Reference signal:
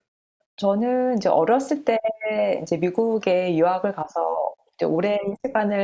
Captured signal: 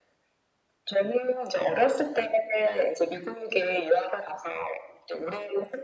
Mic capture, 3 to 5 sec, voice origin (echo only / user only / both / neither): echo only